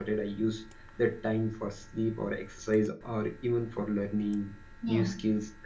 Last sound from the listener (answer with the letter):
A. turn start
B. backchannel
B